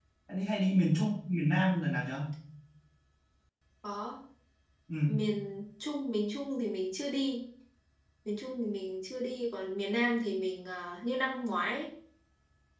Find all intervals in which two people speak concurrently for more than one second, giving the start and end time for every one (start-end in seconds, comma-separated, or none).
none